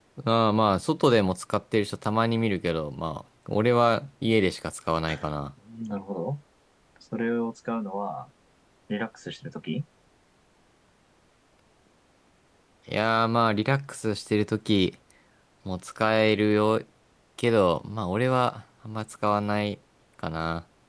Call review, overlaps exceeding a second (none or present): none